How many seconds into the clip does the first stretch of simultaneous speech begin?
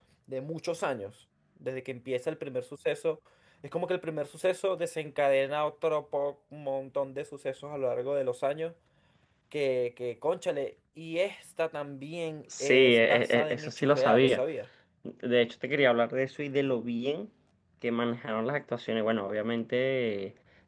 12.5 s

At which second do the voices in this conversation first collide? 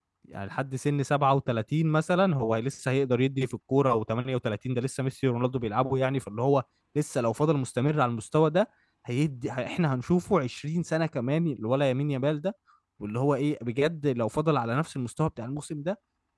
none

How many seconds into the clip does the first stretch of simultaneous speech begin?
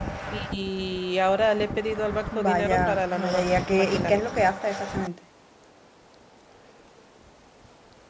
2.3 s

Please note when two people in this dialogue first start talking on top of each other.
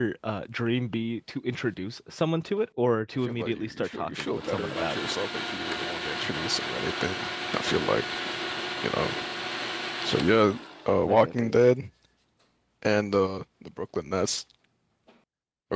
3.2 s

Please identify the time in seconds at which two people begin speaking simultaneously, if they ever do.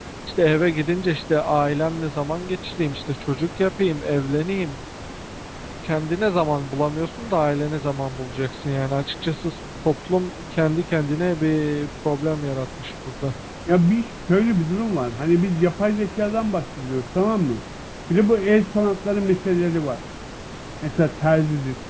none

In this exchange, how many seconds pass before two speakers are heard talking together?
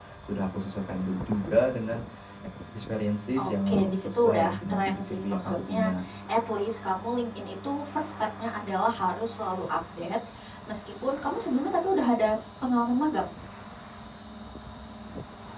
3.4 s

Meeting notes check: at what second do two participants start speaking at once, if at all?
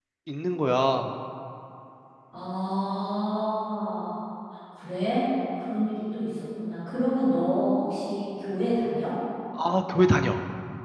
none

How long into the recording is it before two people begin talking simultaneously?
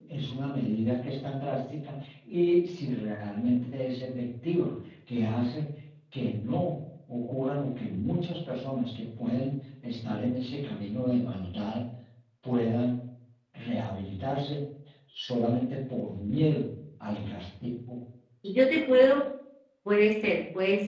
none

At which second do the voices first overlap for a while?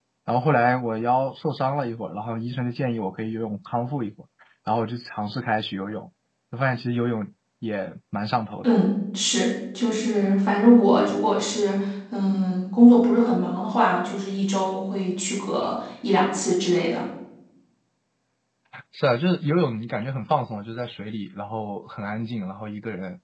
none

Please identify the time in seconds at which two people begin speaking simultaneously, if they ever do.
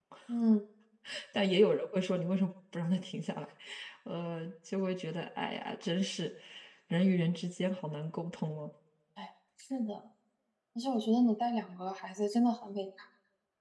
none

